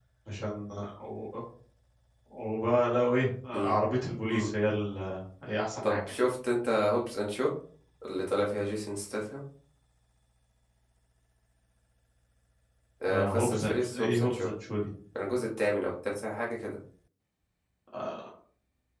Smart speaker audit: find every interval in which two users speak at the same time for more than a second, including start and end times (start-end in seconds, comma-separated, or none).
13.0-14.5